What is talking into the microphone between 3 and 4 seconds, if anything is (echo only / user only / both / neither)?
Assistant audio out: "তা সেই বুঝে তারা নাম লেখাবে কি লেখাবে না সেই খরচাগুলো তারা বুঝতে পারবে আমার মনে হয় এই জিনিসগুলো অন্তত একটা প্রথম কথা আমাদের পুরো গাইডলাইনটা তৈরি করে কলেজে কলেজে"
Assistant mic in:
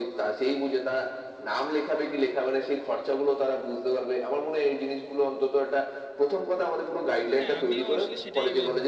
echo only